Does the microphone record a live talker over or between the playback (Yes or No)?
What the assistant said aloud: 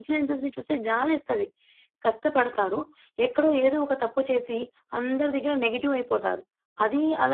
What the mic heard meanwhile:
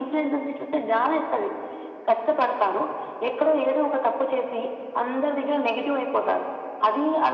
No